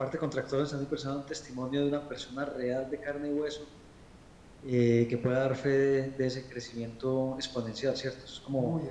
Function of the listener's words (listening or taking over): taking over